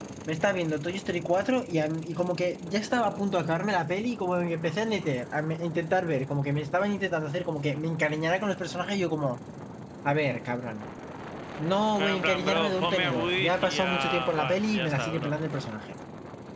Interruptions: present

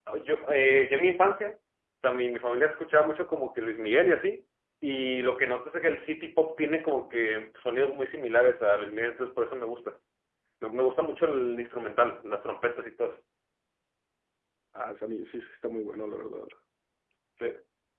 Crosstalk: none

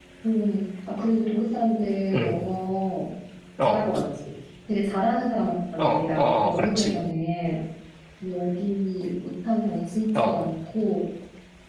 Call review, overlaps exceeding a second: present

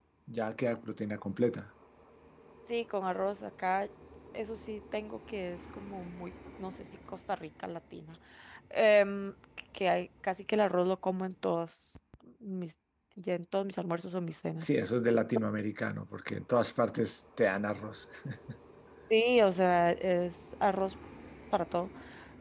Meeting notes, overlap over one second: none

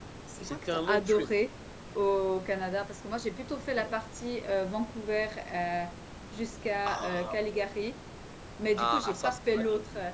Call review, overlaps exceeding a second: present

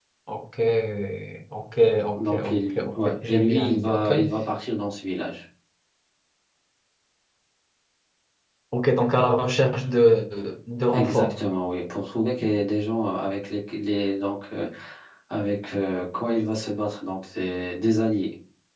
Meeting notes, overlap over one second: present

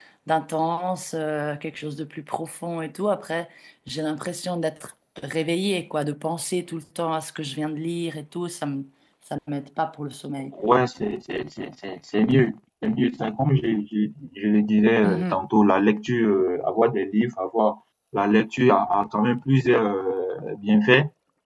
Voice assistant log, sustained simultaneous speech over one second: none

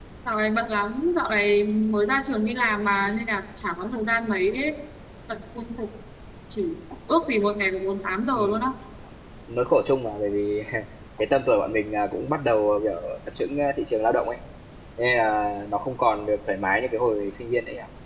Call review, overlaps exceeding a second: none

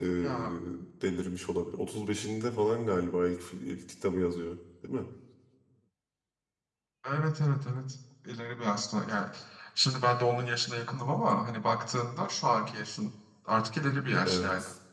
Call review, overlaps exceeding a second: none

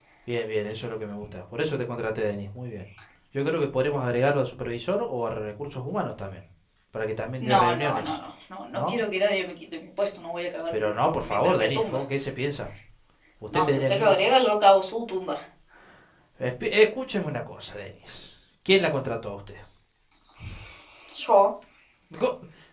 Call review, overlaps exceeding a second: present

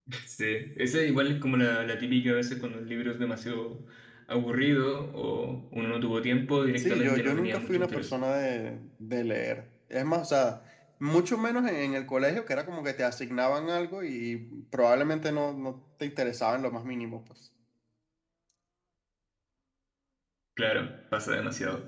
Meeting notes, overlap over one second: present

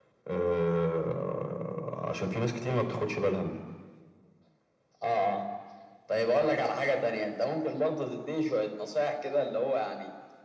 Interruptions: none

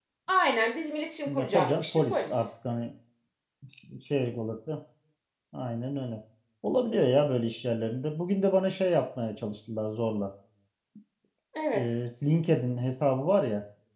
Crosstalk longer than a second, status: present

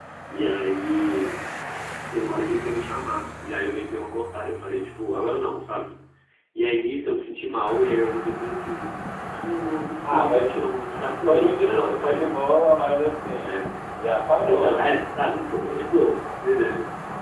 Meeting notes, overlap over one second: present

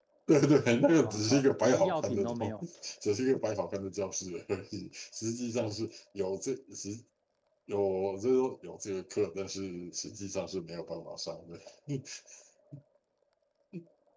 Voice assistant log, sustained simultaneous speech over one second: present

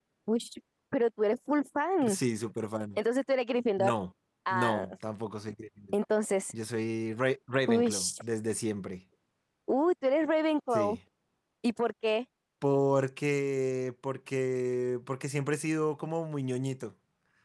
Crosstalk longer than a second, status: none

